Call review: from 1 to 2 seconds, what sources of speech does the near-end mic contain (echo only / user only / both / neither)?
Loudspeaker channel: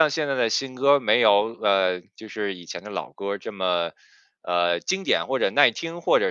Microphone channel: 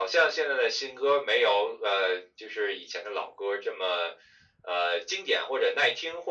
echo only